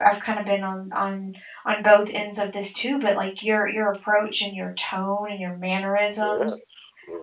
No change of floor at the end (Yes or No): No